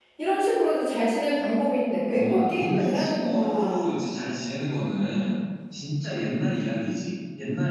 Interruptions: present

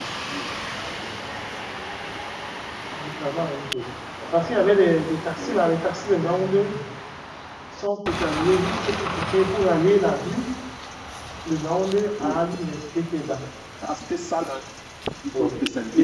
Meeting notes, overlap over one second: none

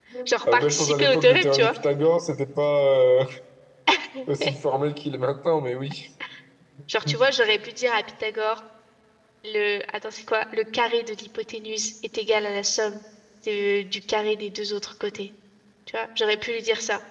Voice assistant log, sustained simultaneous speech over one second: present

